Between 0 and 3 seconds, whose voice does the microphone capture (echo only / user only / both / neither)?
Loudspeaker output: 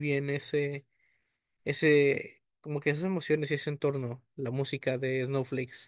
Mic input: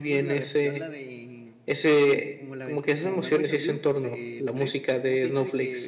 both